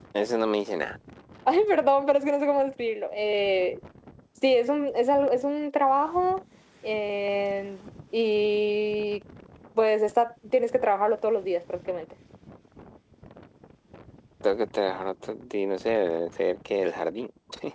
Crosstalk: none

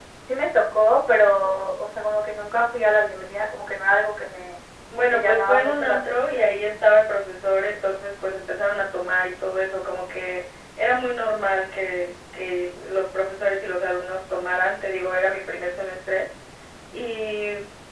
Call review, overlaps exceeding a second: present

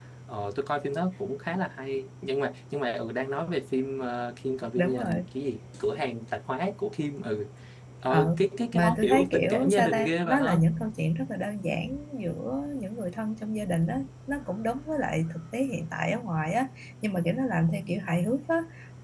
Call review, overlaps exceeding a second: present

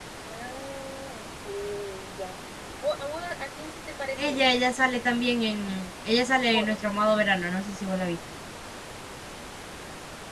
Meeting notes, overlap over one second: none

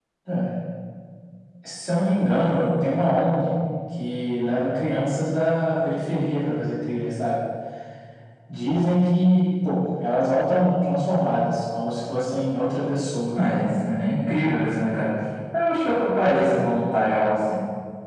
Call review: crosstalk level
none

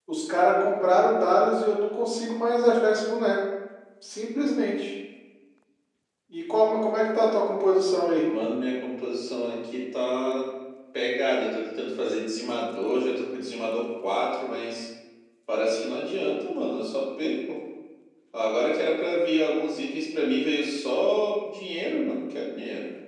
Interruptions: none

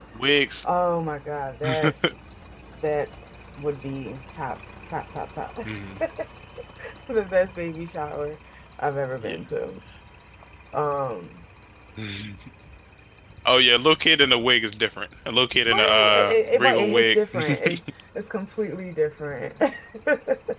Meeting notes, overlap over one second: present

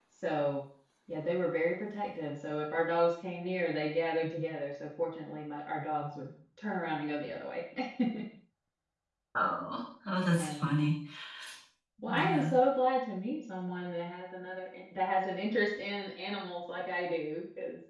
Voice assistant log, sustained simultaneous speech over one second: none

